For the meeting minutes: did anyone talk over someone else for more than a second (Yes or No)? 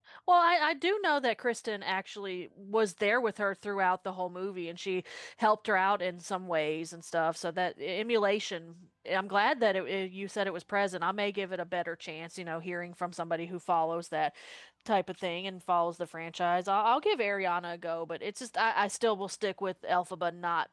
No